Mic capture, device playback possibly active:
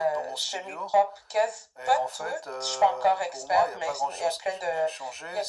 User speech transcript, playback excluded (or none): none